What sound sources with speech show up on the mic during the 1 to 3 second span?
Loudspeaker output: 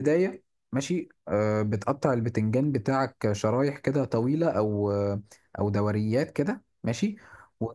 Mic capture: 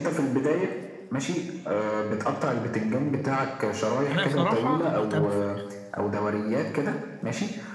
echo only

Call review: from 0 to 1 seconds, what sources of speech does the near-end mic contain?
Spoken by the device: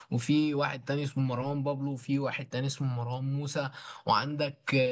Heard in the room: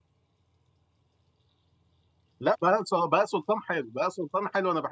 neither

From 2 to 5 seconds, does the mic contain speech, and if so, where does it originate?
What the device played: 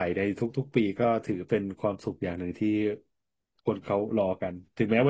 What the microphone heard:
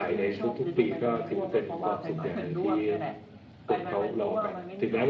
both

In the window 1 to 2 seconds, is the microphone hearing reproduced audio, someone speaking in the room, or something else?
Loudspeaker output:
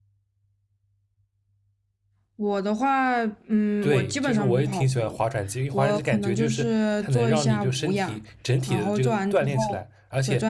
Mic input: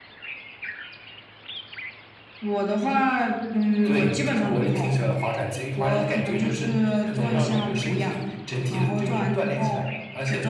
neither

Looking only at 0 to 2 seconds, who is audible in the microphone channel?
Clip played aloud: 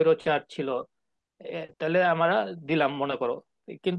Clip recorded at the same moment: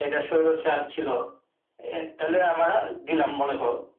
echo only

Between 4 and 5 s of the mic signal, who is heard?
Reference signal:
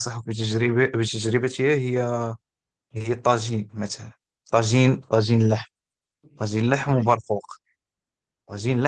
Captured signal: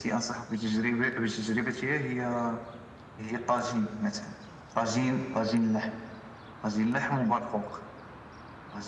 echo only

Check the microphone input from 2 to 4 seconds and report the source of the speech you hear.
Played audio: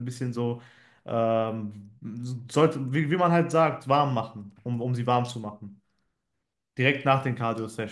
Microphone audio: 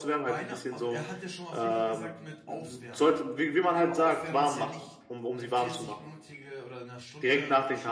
both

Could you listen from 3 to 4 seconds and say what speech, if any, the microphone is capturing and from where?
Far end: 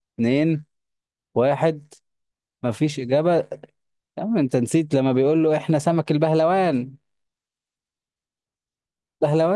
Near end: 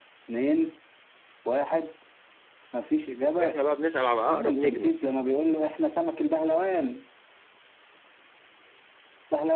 both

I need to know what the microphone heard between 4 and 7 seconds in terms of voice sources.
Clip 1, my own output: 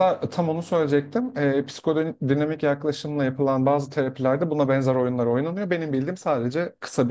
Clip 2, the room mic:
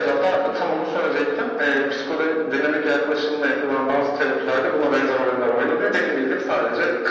echo only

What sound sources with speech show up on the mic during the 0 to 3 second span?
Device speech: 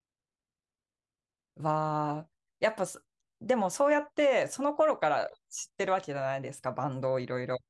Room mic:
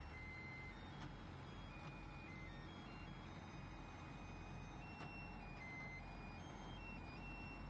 neither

